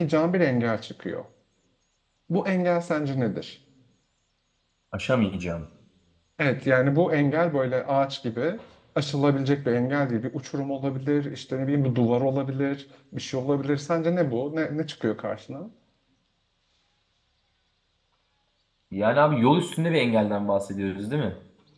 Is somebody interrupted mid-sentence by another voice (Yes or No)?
No